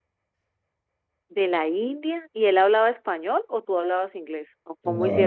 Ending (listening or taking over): taking over